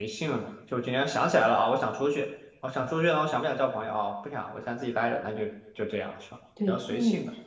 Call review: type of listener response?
taking over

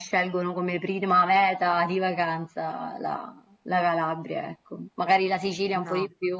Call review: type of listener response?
listening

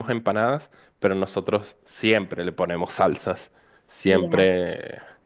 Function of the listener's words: listening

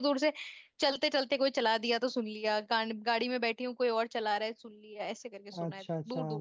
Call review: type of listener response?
taking over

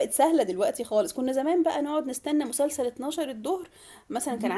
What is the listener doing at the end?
taking over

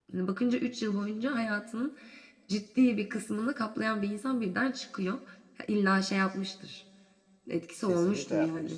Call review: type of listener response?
taking over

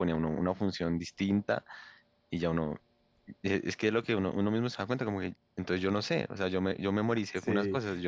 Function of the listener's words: taking over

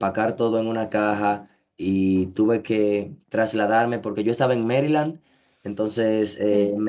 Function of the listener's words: listening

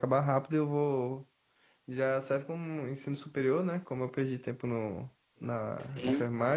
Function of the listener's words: listening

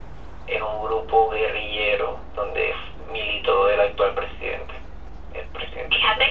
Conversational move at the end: taking over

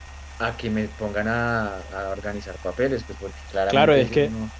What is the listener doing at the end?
taking over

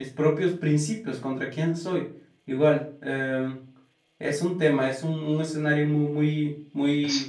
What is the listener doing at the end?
listening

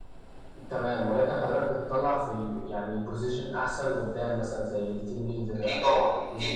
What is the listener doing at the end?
taking over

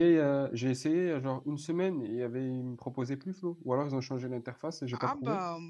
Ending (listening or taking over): taking over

